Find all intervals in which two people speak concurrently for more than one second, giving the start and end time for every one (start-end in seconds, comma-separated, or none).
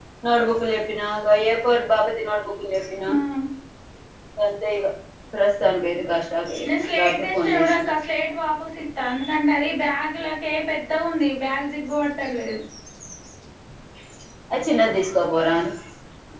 6.7-7.9